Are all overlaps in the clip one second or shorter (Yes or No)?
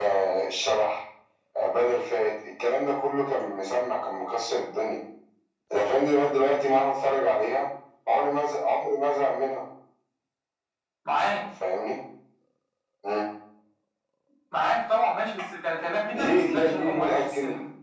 No